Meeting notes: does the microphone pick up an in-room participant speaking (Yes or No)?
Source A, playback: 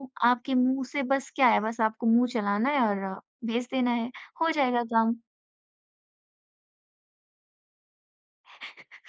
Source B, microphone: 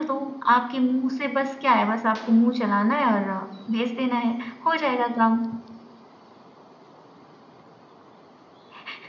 No